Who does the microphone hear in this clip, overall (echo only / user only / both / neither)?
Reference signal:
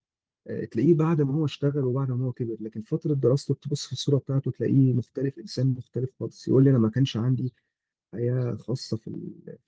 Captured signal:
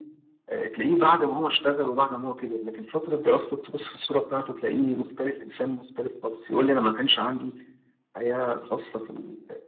echo only